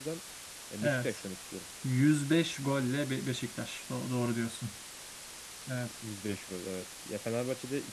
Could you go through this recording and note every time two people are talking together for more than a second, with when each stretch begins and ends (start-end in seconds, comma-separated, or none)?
none